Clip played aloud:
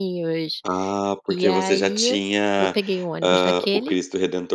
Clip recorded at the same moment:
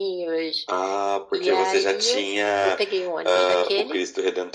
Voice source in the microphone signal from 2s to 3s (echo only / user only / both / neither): echo only